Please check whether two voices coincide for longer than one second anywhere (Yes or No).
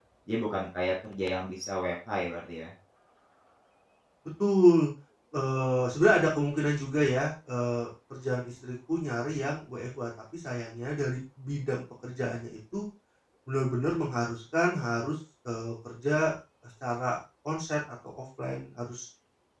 No